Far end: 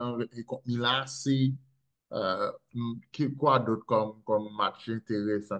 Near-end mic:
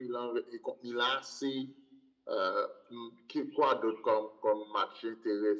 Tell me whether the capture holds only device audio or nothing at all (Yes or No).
Yes